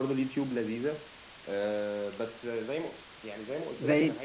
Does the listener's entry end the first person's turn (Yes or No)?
Yes